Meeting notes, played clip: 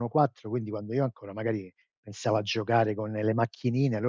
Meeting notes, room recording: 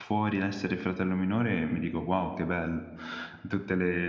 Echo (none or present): none